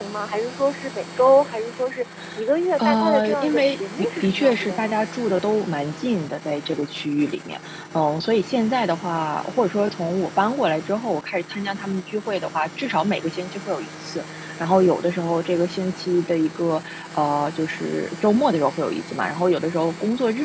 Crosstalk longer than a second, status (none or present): present